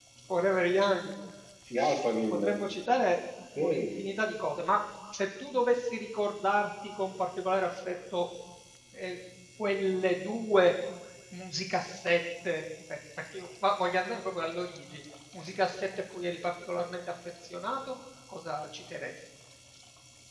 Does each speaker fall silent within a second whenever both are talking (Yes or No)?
Yes